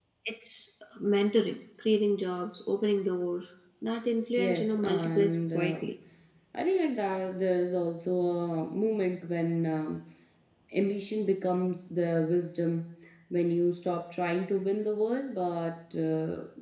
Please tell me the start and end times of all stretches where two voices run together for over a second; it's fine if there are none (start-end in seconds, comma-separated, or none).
4.4-5.8